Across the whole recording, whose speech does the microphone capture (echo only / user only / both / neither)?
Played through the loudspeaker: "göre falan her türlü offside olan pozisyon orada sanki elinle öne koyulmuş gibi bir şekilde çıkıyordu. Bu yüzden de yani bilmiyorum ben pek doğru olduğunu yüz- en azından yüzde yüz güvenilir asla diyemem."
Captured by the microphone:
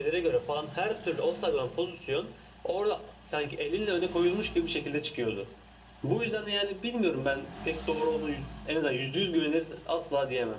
echo only